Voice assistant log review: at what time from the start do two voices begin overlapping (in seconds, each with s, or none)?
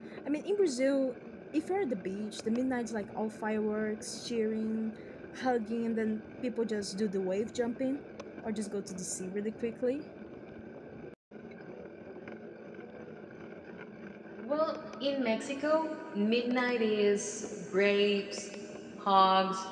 none